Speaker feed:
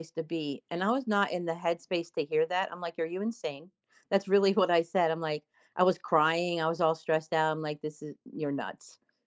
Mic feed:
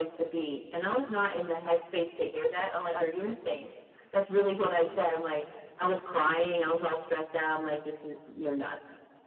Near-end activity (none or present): present